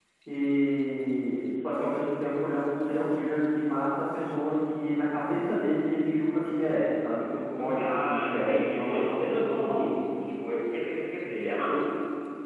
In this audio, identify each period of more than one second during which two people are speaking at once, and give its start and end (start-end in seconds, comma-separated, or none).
7.6-10.1